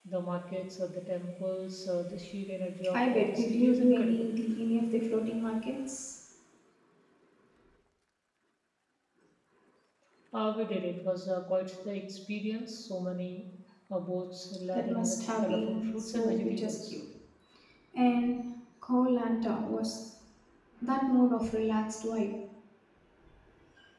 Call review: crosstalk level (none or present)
present